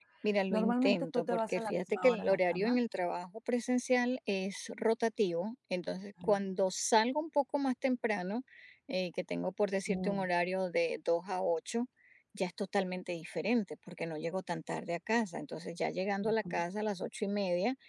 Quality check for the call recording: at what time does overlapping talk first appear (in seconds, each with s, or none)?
0.5 s